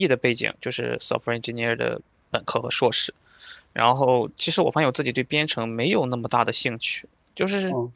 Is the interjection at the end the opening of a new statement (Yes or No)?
No